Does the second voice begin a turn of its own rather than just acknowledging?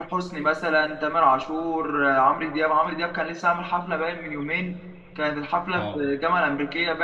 No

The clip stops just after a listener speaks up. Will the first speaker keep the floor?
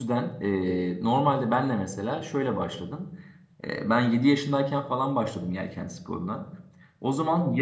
Yes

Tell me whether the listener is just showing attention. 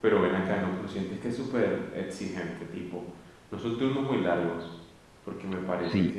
No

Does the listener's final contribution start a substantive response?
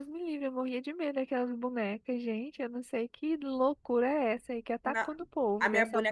Yes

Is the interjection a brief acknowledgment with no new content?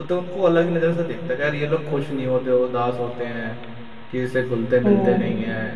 Yes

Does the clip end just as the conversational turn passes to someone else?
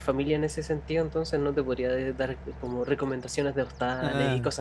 Yes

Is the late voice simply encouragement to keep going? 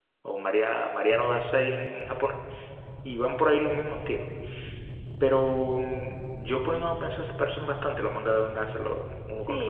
No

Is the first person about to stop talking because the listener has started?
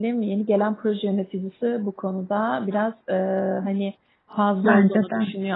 No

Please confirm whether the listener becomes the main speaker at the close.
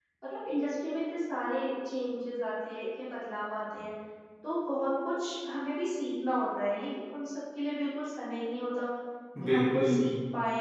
No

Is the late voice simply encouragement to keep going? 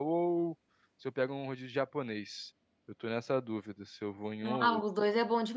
No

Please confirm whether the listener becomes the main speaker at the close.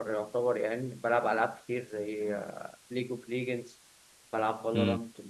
No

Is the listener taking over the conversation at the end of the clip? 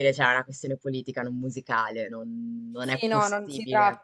Yes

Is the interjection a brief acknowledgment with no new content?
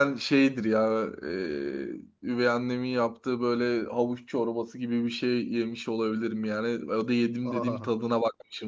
Yes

